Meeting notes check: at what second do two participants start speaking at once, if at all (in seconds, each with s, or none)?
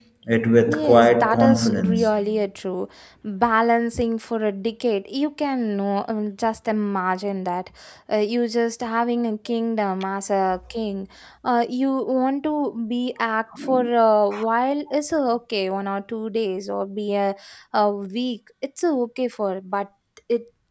0.7 s